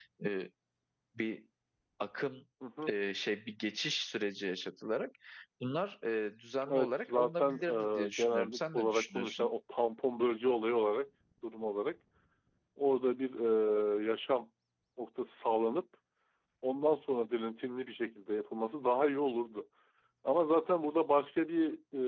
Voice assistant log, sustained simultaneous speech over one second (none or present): present